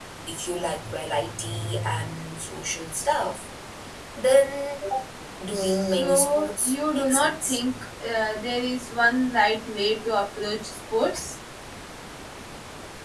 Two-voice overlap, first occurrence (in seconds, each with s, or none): 5.5 s